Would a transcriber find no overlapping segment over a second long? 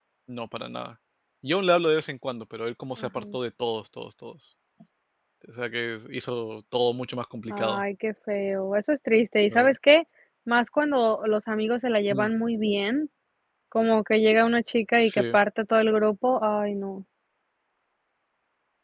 Yes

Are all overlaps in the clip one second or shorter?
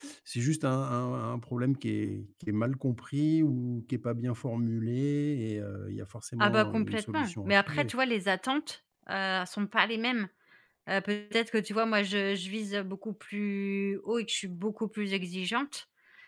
No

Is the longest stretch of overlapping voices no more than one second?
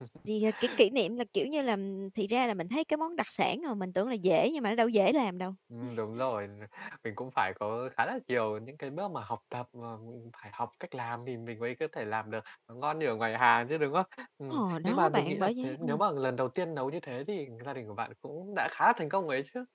No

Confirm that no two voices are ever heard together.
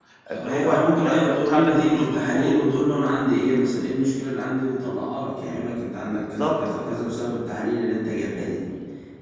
No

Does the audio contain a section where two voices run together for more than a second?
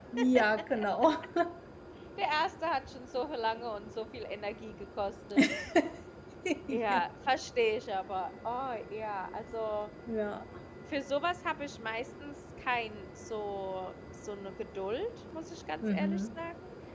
No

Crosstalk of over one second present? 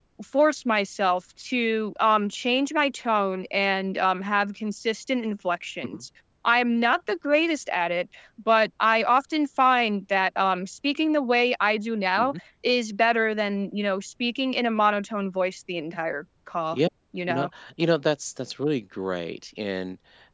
No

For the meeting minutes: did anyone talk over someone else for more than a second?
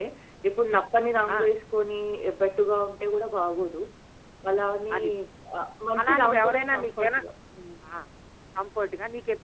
Yes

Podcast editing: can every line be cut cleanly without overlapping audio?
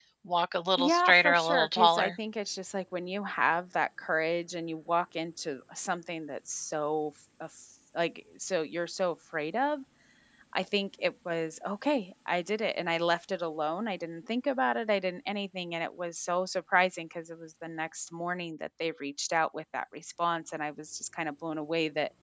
No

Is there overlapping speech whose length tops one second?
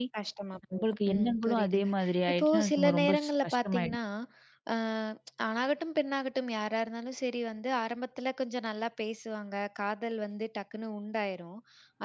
Yes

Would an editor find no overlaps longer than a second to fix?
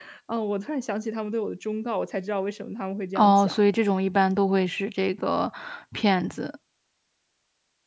Yes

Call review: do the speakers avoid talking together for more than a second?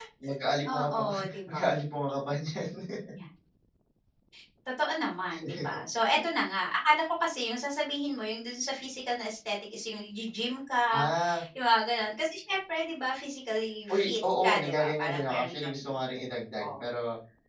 No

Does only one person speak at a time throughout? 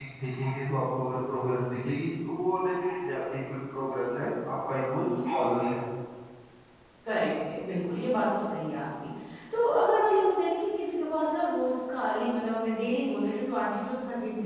Yes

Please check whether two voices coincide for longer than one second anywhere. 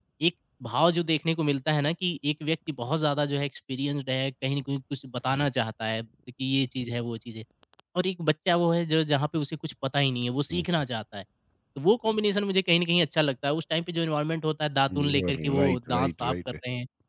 Yes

